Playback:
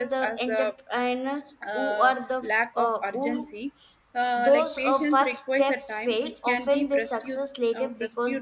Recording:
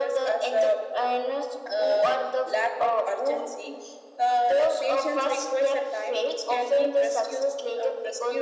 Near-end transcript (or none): none